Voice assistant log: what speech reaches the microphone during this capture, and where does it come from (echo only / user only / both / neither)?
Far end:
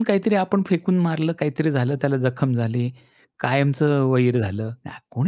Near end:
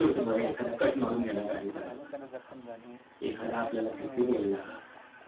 both